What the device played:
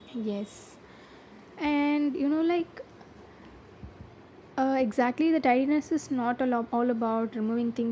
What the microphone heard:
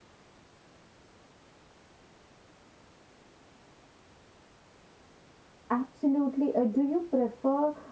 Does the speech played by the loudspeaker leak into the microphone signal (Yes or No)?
No